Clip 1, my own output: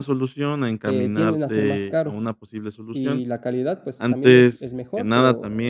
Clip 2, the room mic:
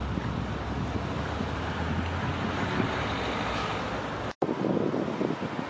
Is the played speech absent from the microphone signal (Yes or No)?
Yes